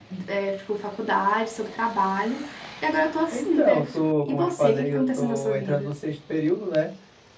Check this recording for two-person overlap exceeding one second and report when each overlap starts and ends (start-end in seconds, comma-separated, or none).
3.3-5.9